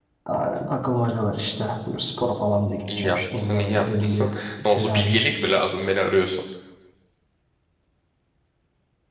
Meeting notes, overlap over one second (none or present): present